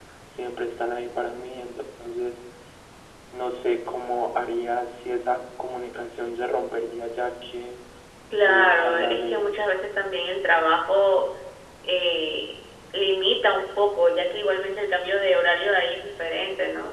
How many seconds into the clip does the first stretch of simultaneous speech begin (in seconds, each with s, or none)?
8.4 s